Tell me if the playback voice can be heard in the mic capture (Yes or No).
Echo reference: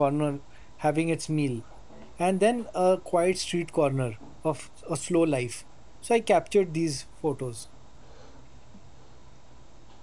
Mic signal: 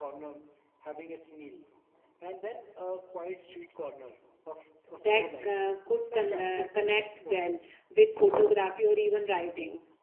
Yes